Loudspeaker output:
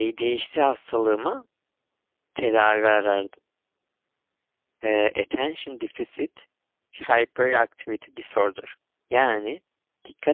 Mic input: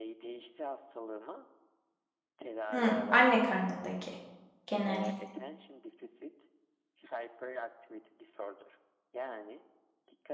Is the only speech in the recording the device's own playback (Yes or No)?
No